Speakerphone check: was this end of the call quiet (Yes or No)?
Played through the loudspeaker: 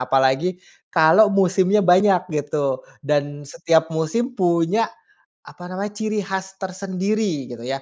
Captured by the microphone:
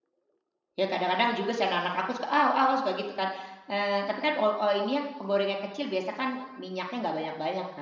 No